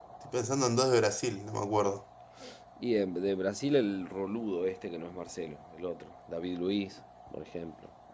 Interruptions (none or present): none